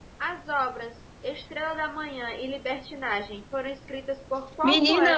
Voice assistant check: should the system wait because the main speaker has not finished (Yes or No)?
No